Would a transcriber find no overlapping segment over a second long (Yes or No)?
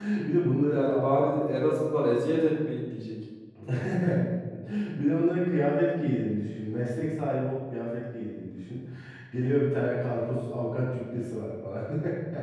Yes